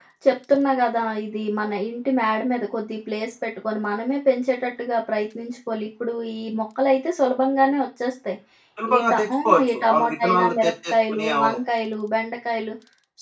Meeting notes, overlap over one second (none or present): present